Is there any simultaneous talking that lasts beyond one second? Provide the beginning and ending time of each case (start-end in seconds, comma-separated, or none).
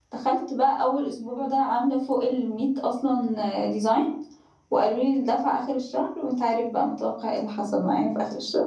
none